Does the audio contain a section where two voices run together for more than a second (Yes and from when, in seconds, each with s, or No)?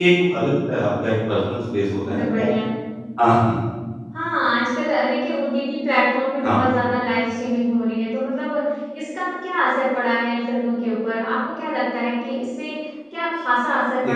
No